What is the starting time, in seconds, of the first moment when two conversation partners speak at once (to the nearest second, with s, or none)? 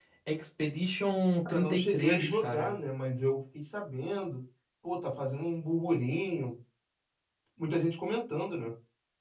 1 s